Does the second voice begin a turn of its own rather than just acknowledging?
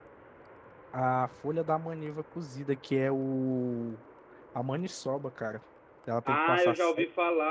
Yes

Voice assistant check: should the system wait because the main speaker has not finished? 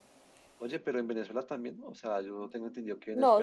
No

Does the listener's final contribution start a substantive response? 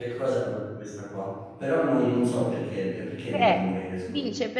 Yes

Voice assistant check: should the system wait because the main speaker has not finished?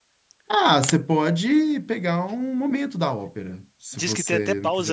No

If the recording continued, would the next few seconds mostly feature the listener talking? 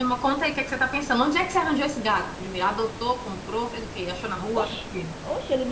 Yes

